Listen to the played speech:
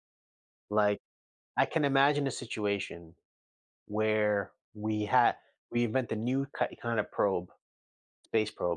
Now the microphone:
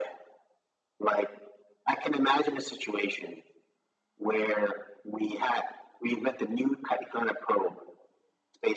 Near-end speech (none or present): none